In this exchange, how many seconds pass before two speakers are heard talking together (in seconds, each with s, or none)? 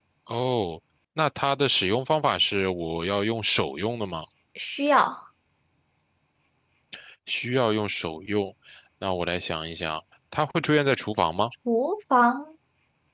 none